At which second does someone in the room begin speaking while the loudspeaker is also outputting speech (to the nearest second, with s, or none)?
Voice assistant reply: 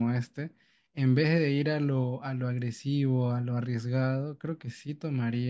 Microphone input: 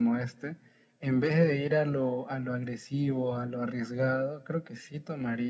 none